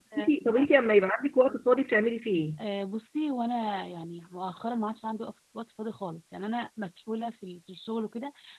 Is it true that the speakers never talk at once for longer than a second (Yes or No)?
Yes